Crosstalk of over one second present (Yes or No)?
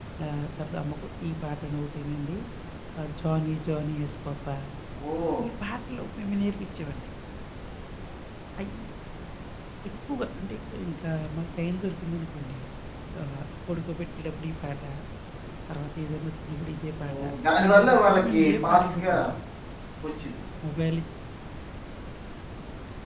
Yes